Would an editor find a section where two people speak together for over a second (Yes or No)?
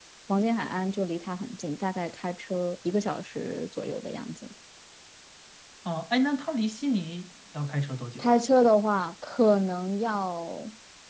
No